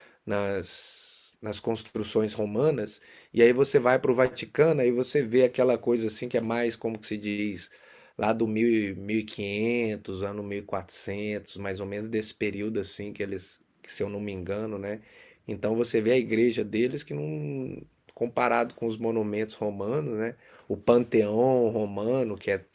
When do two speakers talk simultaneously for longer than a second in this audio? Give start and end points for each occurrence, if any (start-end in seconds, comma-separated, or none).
none